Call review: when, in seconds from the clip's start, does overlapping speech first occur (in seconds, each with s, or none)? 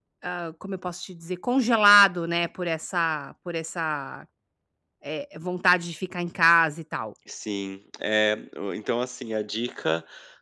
none